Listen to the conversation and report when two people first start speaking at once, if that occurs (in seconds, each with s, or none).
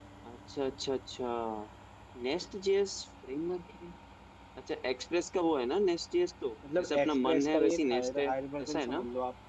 6.6 s